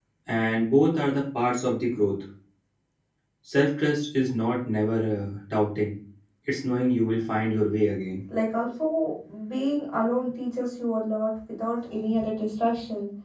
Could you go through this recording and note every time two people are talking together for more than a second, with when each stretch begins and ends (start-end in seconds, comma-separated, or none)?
none